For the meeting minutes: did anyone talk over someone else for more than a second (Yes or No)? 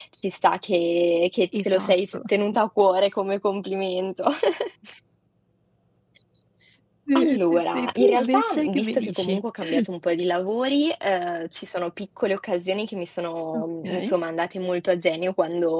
Yes